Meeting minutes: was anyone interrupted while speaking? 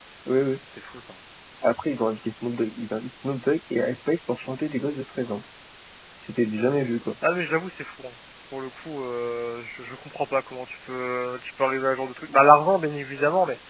No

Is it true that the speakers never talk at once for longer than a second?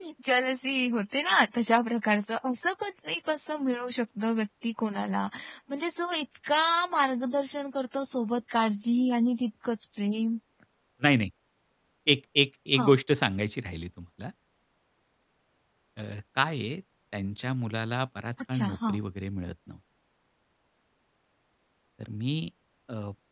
Yes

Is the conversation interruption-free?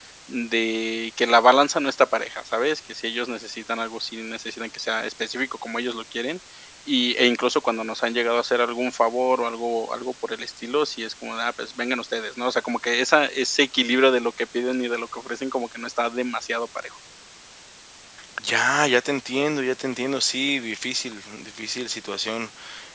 Yes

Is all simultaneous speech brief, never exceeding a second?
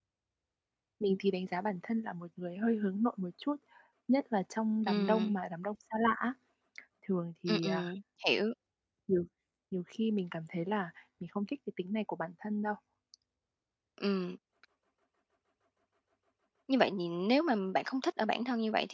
Yes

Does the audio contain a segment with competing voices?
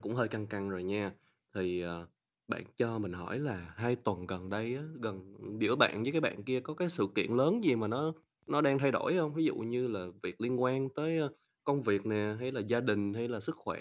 No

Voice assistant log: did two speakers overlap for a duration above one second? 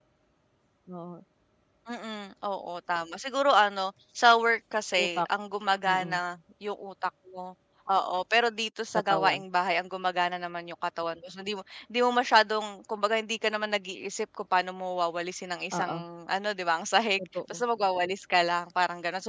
No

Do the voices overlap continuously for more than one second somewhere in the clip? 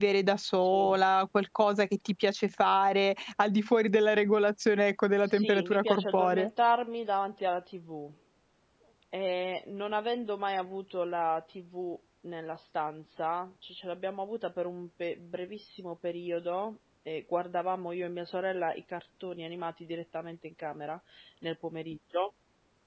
Yes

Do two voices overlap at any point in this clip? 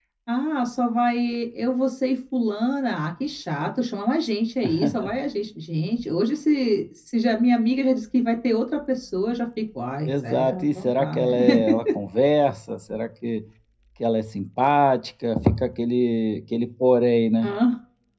Yes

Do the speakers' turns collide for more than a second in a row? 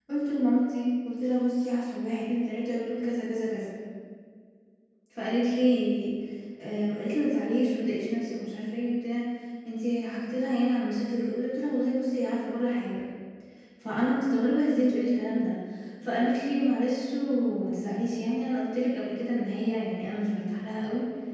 No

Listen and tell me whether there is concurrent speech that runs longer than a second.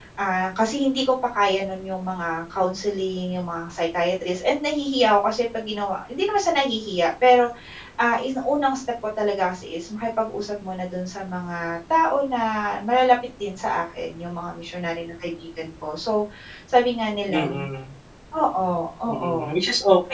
No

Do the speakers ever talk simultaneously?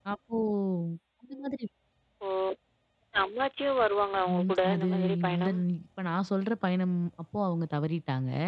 Yes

